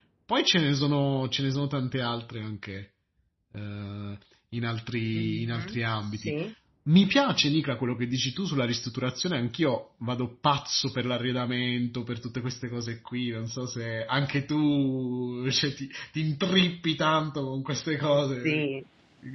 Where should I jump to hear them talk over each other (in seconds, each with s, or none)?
5.1 s